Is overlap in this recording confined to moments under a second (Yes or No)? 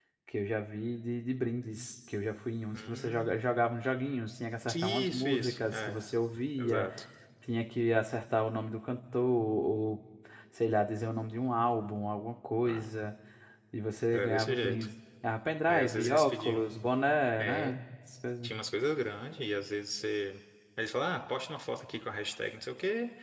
No